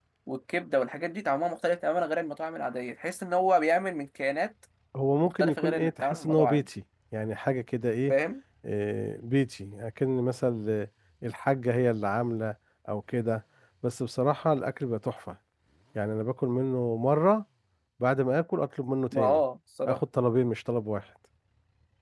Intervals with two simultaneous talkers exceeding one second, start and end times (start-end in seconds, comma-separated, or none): 5.2-6.7